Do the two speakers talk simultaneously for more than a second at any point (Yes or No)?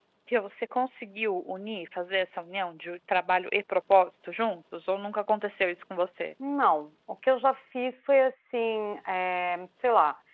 No